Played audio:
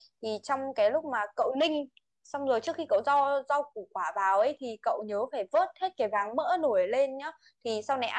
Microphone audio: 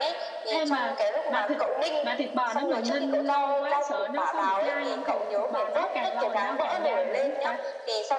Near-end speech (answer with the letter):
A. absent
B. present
B